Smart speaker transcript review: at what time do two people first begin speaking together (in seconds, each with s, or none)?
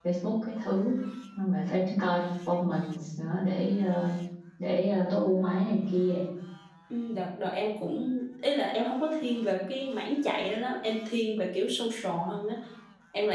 none